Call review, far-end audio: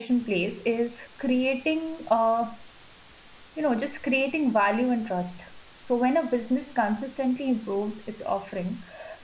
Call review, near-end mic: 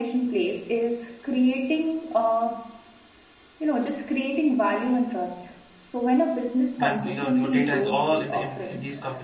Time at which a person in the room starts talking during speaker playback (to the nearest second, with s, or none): 7 s